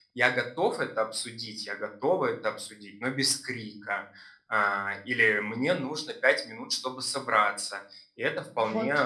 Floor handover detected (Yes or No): No